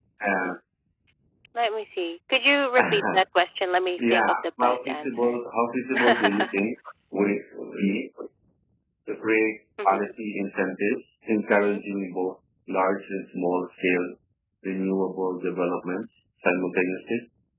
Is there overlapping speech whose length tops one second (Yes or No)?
Yes